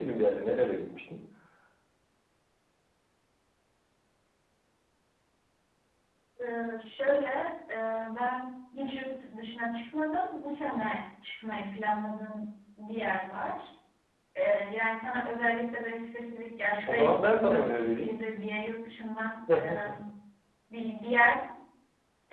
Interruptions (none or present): present